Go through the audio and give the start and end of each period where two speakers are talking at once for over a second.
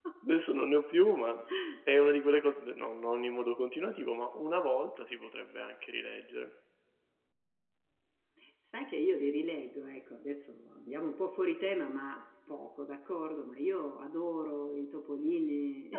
none

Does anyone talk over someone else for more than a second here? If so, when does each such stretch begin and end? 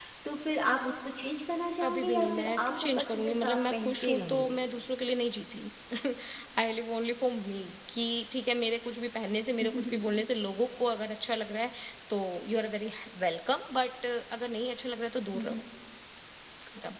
1.8-4.6

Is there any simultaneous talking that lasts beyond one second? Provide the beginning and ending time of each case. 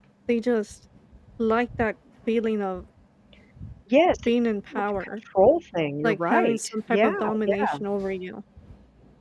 6.0-7.8

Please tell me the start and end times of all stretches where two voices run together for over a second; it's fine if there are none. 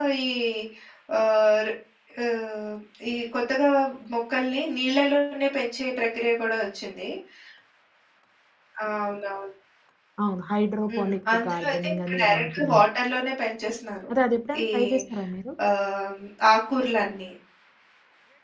10.9-12.8

